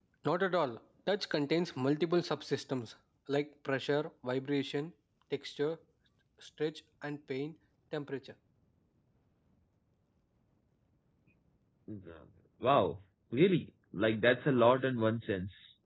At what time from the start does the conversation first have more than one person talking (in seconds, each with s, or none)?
none